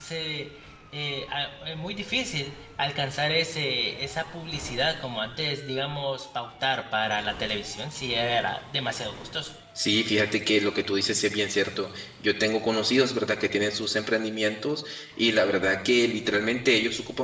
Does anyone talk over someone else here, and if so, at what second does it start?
none

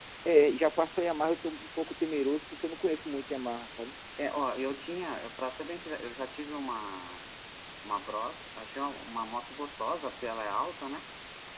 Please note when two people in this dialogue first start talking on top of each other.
none

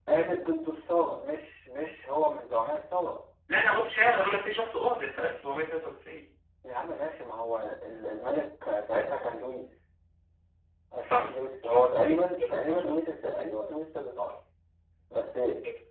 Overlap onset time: 11.0 s

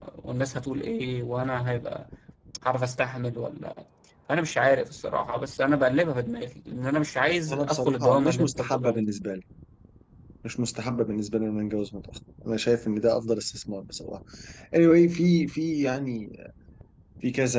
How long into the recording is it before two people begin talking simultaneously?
7.5 s

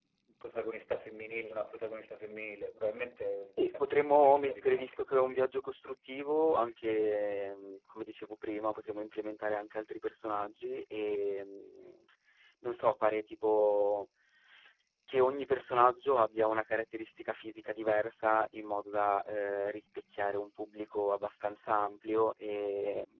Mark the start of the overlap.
3.6 s

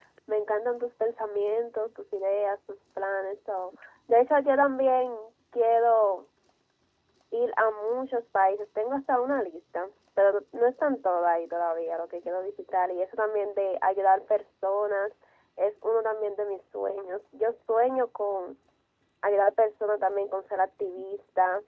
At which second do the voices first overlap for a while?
none

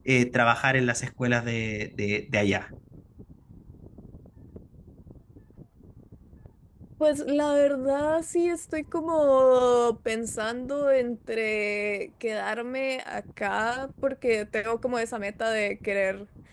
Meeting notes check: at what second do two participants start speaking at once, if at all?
none

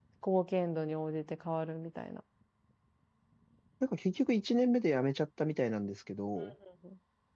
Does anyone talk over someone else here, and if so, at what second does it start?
none

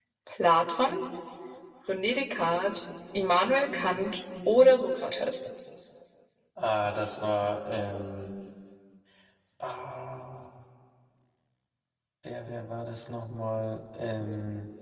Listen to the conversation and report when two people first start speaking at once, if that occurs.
none

